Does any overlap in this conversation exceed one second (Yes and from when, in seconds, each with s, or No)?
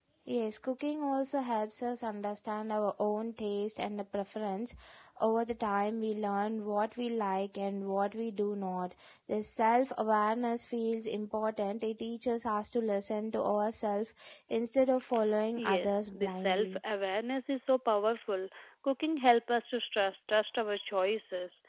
Yes, from 15.6 s